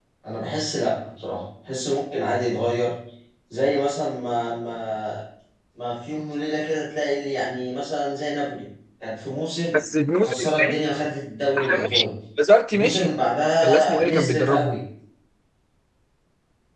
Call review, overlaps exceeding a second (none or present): present